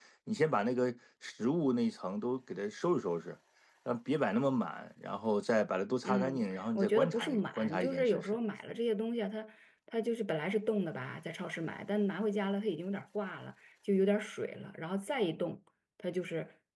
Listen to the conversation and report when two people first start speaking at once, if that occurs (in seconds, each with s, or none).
6.0 s